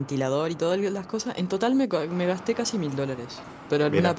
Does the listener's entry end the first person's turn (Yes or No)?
No